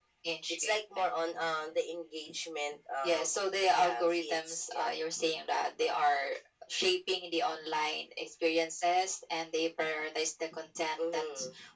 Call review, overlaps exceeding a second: present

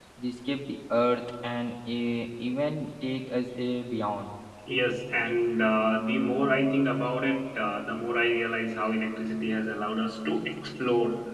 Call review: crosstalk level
none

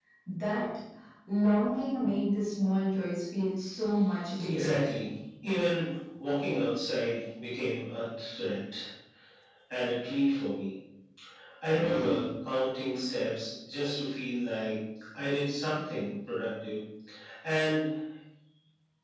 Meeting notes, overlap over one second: none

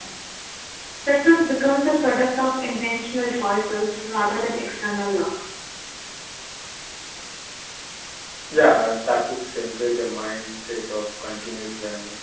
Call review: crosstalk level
none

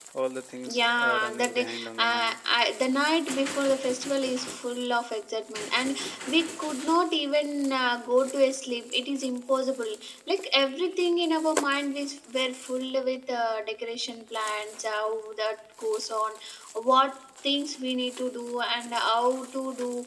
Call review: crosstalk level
present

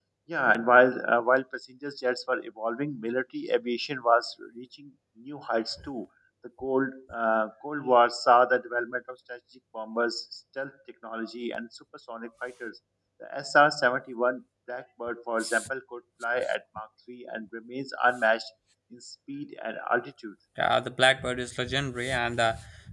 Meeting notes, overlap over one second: none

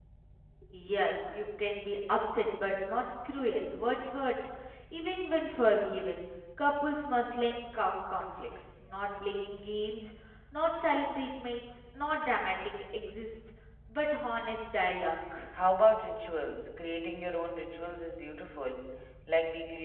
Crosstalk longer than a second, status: none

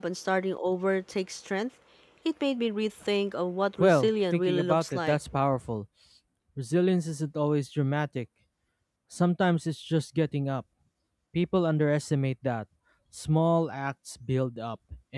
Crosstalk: present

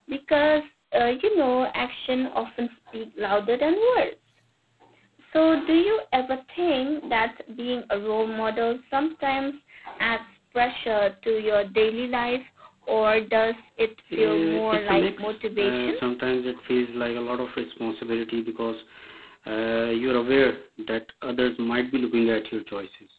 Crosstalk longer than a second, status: present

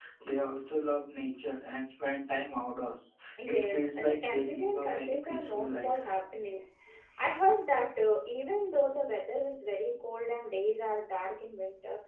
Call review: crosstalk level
present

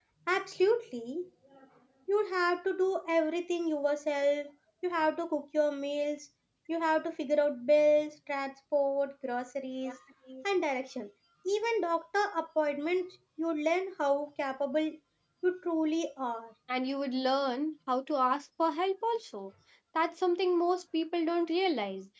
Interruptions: none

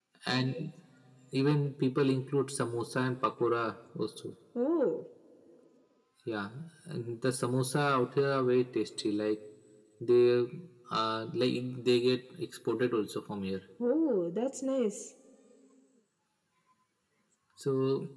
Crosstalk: none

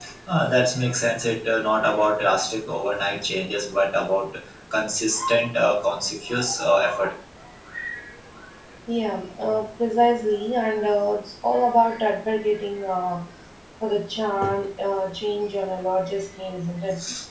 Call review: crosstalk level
none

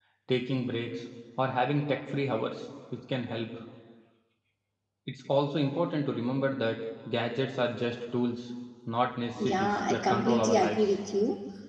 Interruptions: present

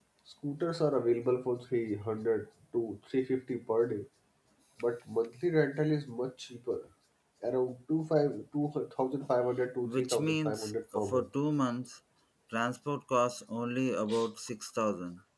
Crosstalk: present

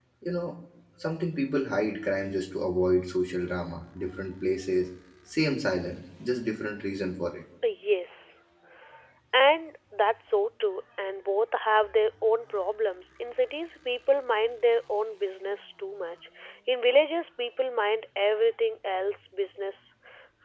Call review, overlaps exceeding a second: none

